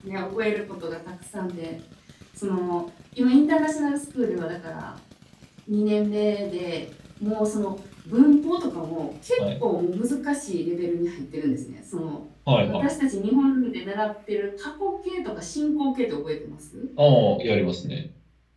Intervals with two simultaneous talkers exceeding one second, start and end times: none

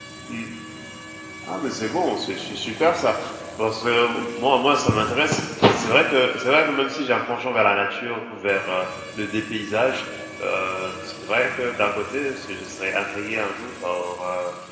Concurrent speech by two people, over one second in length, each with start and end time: none

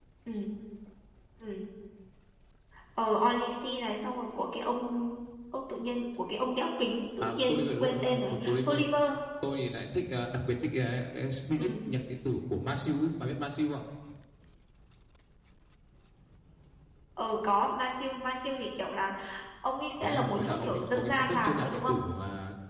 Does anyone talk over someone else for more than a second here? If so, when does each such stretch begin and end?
7.2-8.8, 20.0-22.0

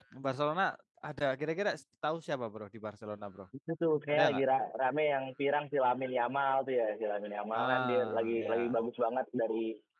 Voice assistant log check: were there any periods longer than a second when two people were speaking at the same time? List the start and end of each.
7.5-8.8

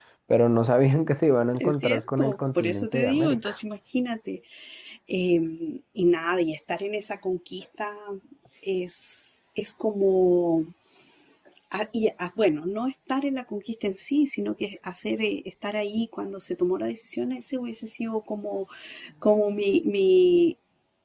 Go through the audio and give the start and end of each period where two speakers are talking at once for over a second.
1.6-3.6

